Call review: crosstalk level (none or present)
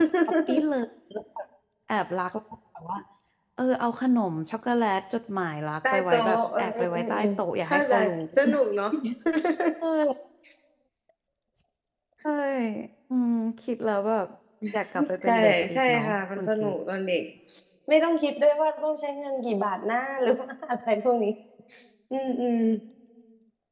present